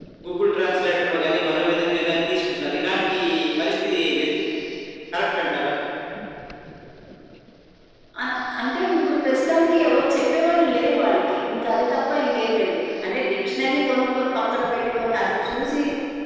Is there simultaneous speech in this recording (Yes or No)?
No